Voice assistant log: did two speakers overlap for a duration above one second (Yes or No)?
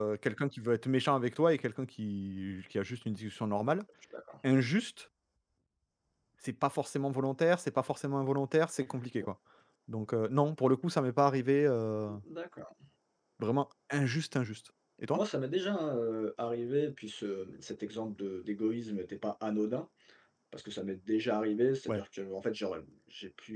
No